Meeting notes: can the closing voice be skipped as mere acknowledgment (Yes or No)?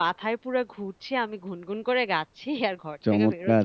No